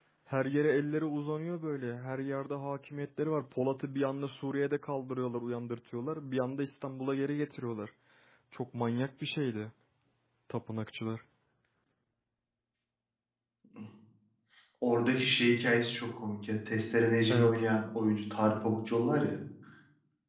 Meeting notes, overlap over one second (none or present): none